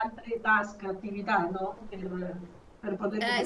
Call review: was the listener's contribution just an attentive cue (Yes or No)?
No